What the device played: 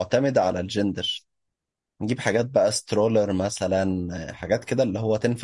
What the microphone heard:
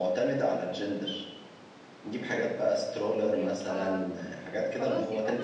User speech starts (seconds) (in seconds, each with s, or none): 3.3 s